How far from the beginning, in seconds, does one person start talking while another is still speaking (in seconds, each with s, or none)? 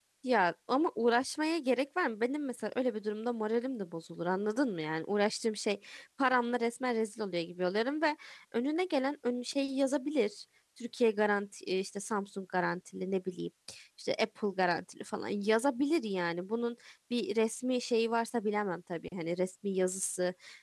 none